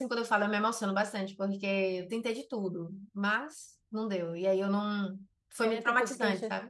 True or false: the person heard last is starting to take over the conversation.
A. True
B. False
A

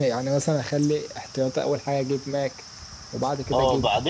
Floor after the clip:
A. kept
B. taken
B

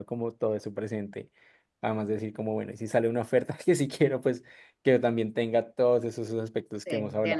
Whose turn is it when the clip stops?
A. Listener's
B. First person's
A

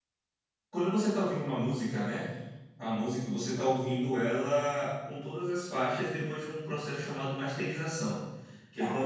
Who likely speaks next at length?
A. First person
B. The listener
A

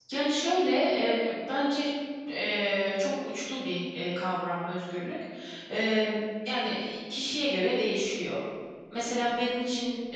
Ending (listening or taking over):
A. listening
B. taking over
A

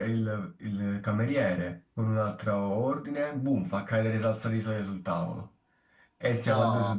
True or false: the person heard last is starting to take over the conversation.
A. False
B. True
A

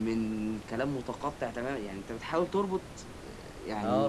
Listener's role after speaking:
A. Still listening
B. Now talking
B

